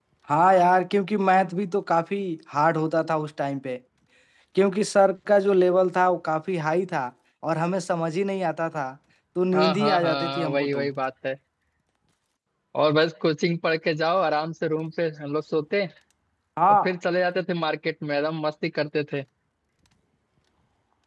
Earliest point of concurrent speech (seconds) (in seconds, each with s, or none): 9.5 s